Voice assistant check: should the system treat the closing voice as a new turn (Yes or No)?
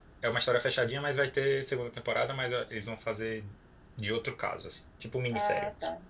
Yes